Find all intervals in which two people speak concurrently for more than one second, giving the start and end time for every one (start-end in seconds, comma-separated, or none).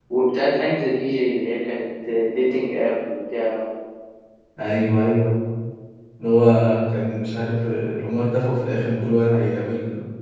none